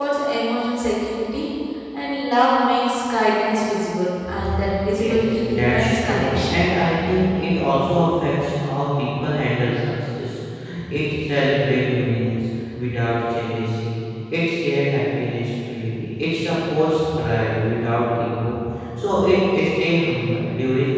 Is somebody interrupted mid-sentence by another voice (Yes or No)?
Yes